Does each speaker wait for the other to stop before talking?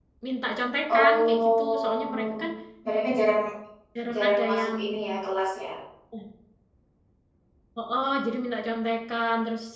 No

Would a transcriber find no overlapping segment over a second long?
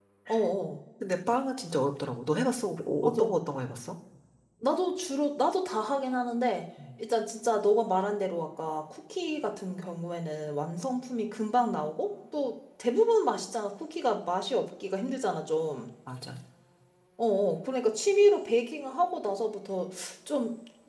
Yes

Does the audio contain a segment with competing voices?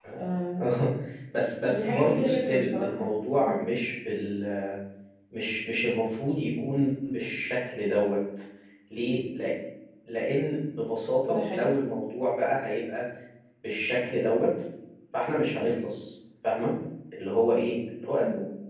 Yes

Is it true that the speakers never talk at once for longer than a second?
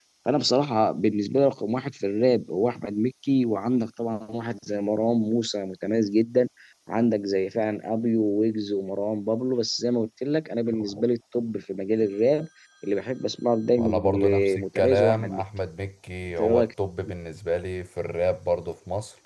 No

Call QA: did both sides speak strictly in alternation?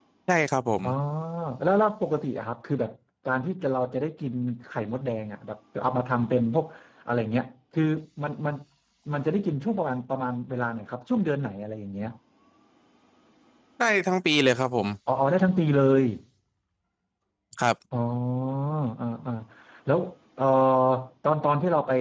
Yes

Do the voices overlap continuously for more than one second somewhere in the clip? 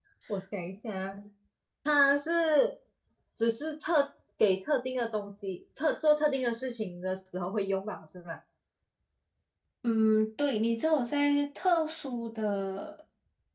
No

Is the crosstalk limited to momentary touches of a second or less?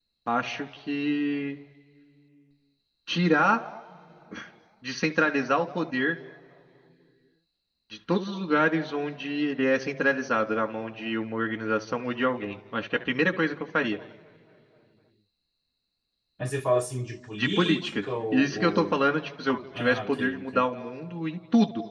No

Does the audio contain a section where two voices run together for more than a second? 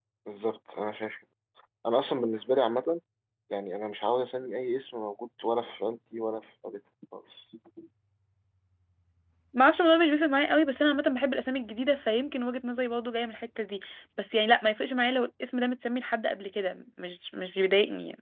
No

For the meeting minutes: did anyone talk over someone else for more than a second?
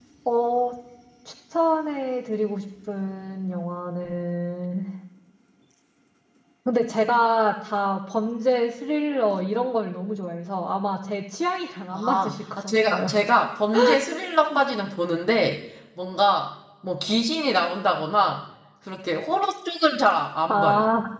Yes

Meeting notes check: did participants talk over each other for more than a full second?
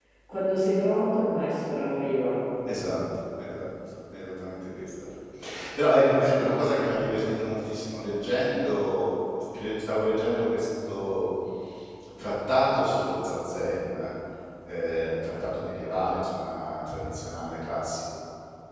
No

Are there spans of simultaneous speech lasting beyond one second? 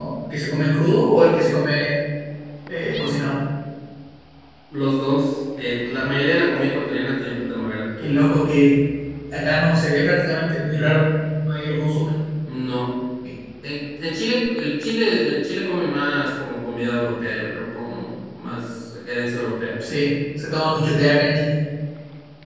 No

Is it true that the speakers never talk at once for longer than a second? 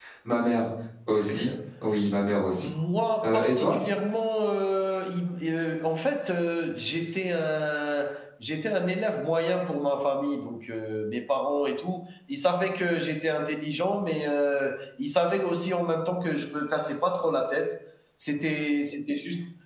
Yes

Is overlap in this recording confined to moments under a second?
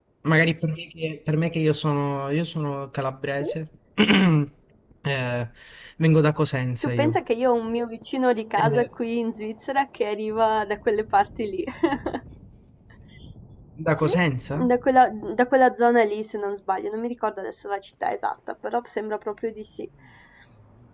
Yes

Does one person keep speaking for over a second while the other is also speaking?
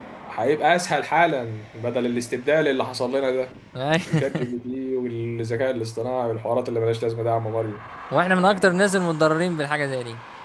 No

